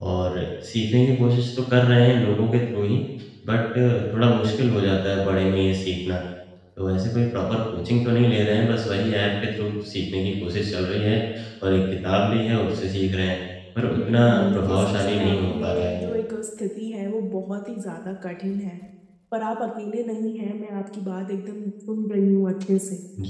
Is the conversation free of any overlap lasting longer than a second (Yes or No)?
No